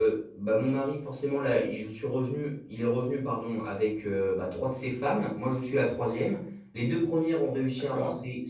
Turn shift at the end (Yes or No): No